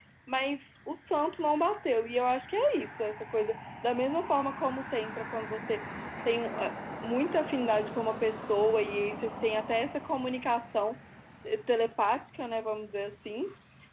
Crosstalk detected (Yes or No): No